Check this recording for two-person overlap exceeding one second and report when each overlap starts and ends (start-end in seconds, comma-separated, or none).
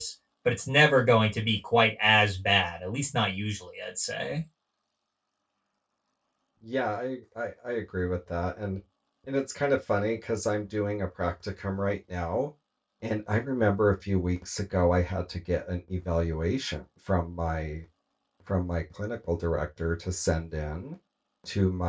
none